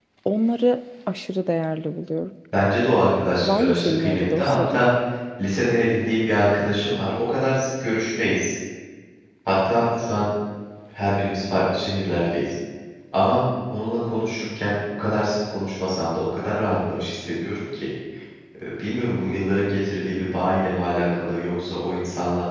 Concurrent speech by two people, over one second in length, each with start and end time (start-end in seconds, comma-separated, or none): 3.4-4.9